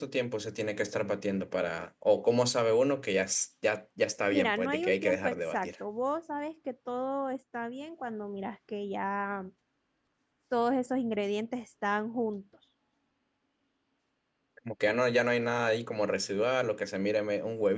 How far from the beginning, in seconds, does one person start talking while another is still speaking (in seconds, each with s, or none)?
4.3 s